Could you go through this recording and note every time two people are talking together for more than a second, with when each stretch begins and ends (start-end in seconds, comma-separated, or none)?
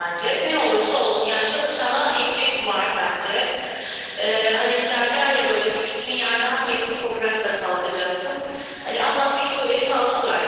none